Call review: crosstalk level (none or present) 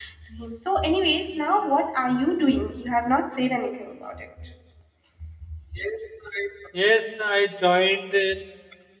none